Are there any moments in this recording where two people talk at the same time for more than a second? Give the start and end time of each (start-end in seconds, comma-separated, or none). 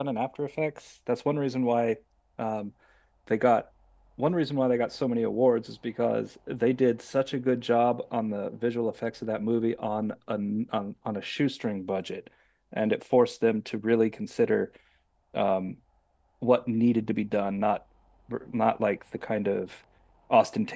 none